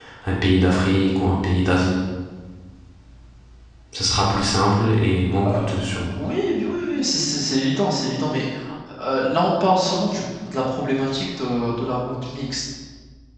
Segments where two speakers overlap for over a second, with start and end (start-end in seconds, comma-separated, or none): none